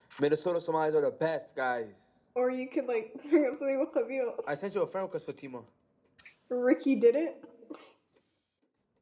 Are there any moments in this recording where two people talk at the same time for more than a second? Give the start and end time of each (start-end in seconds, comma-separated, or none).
none